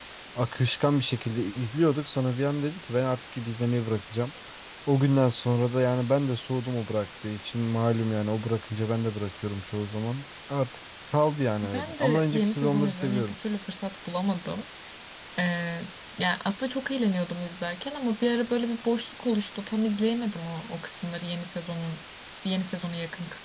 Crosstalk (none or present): present